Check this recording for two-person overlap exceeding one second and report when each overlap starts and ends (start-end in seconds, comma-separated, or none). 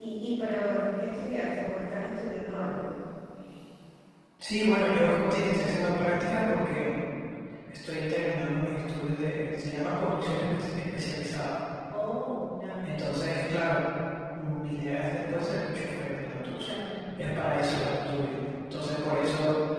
none